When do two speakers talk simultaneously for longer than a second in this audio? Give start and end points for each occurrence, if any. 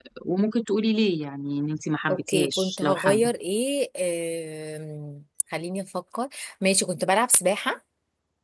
2.1-3.3

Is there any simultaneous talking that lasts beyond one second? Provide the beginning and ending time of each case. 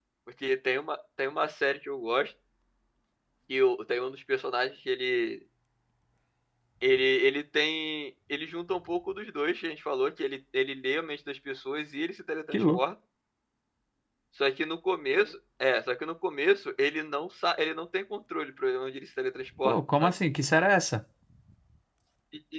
none

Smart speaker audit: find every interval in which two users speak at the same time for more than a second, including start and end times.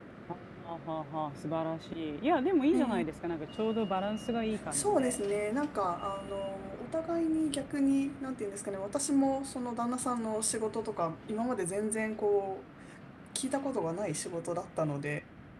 none

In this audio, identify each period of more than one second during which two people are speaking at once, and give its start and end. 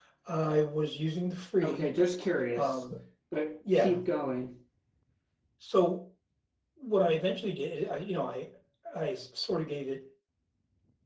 none

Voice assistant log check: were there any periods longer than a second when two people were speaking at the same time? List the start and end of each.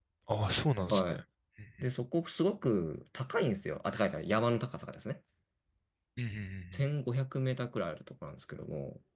none

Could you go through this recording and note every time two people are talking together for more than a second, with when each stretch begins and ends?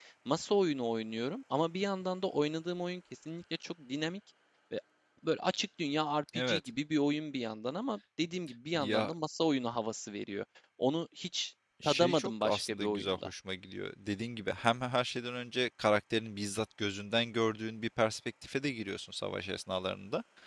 11.8-13.3

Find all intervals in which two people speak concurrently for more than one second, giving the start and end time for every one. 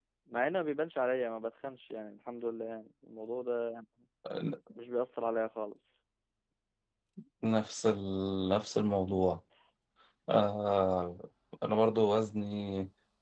none

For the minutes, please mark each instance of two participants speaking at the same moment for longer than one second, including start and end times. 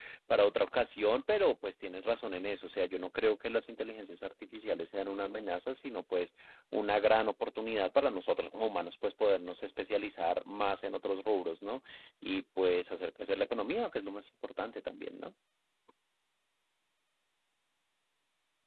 none

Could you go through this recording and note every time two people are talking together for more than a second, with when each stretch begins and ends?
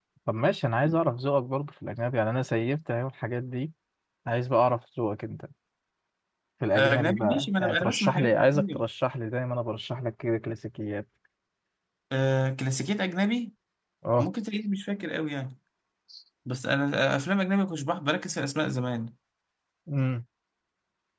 6.8-8.8

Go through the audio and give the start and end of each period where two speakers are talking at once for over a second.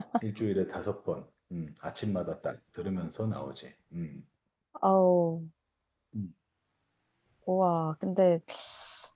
none

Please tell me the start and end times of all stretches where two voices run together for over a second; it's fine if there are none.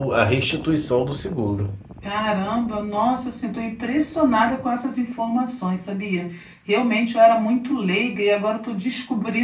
none

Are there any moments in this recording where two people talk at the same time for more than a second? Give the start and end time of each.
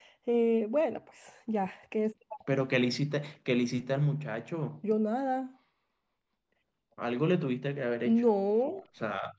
none

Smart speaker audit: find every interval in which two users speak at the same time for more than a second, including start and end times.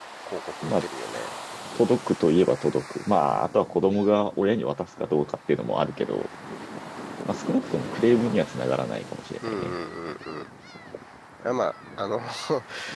none

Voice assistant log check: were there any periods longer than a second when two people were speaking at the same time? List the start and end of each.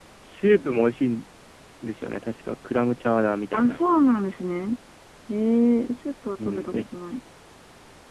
none

